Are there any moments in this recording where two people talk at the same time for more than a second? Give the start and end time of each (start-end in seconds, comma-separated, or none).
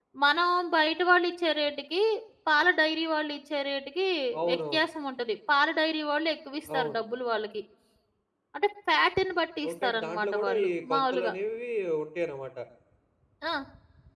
9.7-11.3